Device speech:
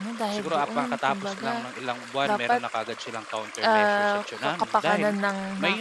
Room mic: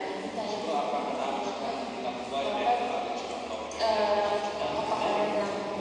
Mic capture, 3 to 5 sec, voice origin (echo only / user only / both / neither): echo only